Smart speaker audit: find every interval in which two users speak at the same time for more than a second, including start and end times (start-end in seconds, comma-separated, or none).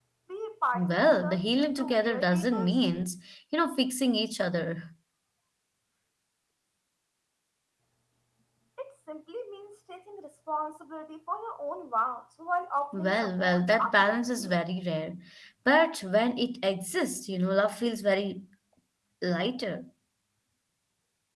0.7-2.8, 12.9-14.6